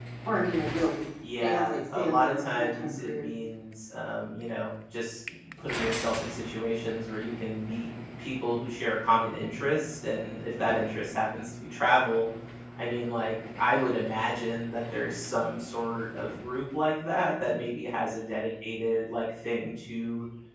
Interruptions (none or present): present